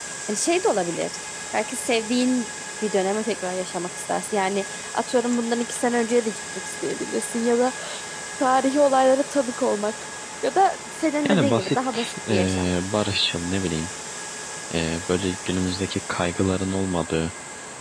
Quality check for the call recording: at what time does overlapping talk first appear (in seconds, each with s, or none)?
11.2 s